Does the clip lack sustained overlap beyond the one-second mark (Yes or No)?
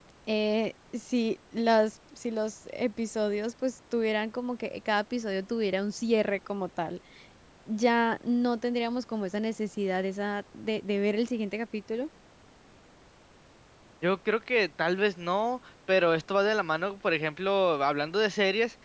Yes